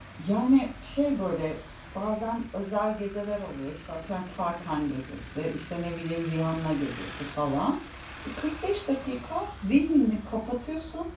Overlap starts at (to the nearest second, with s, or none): none